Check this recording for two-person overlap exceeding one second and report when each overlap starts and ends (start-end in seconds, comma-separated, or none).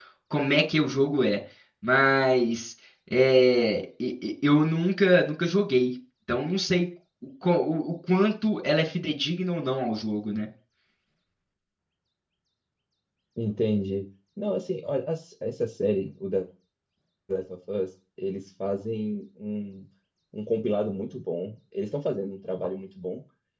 none